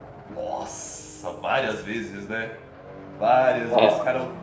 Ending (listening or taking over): listening